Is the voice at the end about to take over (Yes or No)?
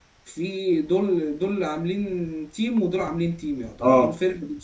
No